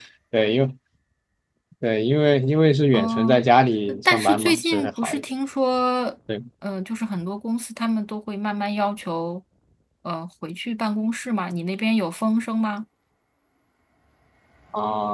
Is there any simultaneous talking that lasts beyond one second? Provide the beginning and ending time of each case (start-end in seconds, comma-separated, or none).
3.9-5.2